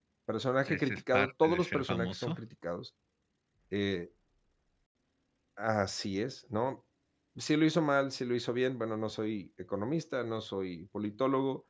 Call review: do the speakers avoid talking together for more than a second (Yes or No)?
No